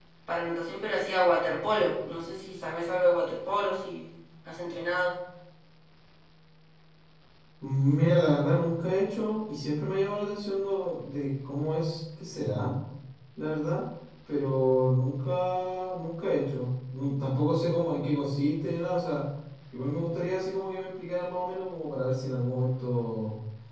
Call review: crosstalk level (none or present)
none